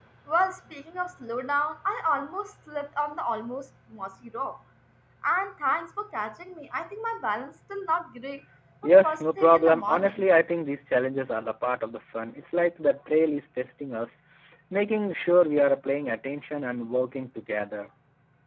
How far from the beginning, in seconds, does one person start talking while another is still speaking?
8.8 s

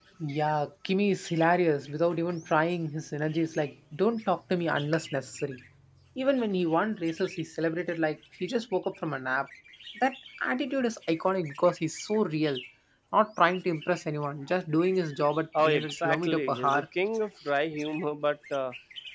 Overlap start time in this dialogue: 15.5 s

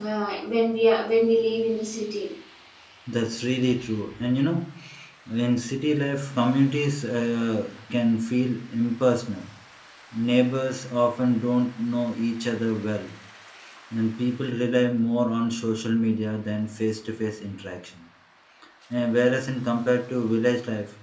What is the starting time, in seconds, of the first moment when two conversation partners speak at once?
none

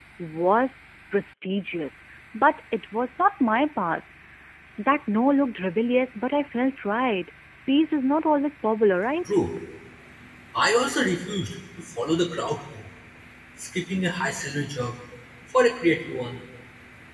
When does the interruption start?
none

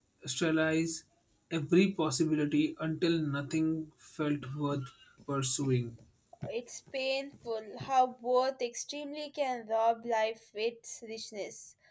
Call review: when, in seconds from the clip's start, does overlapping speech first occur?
none

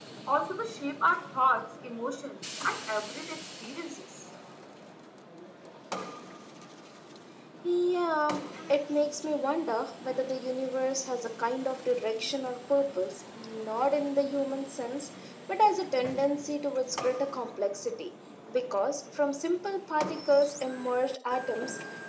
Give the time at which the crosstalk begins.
none

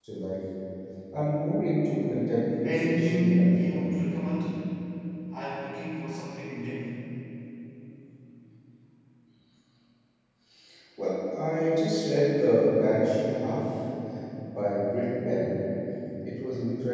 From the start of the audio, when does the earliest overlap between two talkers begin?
2.6 s

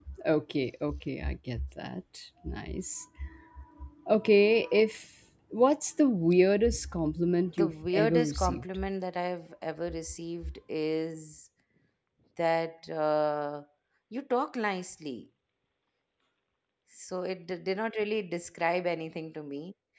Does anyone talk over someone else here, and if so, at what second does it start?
7.6 s

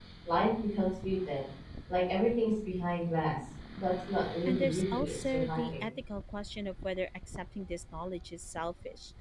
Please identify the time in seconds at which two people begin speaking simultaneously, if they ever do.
4.5 s

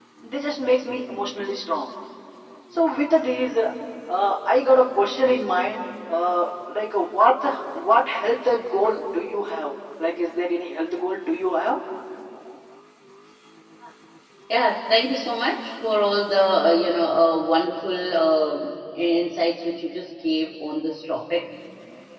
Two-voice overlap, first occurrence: none

